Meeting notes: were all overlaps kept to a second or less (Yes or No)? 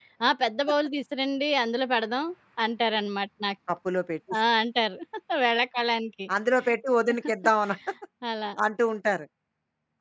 Yes